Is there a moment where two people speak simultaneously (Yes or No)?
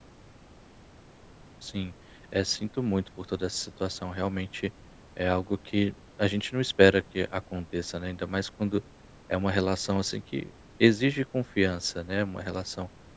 No